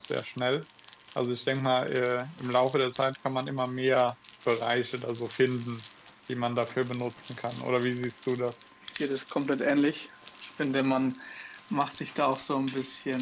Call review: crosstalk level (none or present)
none